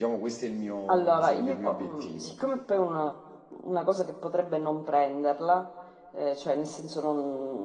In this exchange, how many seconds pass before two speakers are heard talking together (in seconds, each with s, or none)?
0.9 s